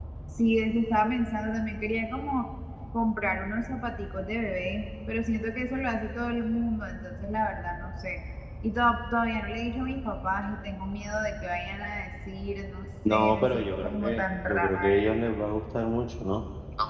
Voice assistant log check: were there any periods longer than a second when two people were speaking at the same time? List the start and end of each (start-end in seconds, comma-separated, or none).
13.1-15.1